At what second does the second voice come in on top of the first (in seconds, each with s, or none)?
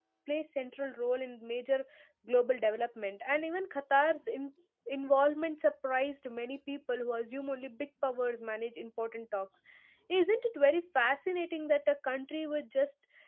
none